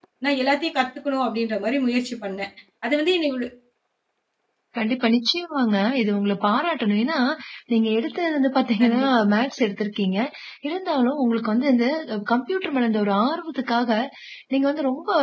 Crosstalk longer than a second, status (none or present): none